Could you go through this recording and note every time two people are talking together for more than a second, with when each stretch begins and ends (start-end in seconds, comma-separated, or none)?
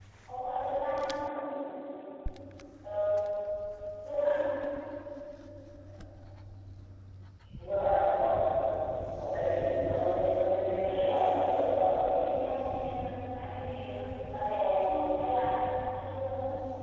10.7-12.0